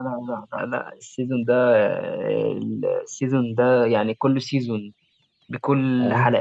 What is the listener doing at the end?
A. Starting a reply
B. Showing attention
B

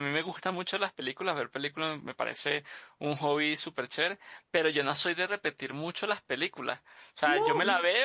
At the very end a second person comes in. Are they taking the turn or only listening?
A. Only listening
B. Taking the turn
A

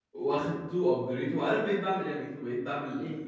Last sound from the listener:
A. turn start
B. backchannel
B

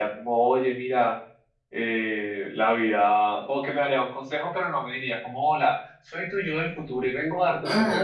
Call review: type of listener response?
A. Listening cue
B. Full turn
B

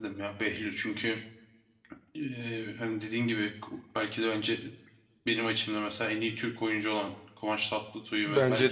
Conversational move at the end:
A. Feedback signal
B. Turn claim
B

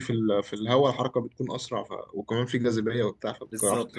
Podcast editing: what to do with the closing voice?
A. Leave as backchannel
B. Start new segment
B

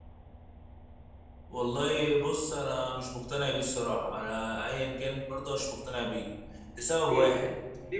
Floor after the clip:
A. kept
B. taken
B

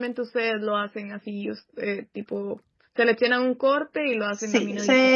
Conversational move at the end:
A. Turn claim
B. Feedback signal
A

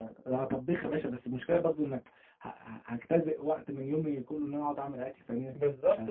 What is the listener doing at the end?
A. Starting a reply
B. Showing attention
A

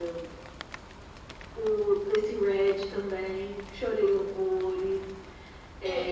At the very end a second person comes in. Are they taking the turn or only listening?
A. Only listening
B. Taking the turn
B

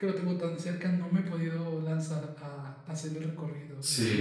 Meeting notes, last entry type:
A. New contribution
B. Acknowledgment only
A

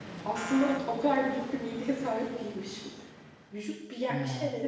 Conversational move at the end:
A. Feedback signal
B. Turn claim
A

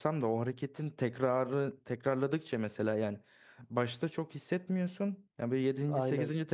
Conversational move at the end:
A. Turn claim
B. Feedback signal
B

